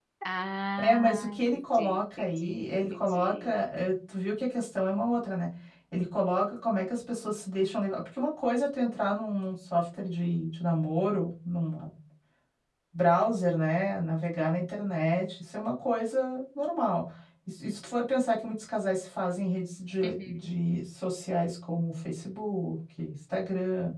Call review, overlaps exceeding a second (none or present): present